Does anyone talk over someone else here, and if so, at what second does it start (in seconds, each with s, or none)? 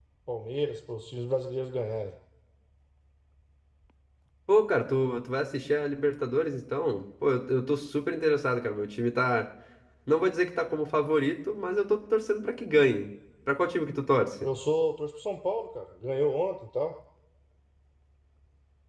none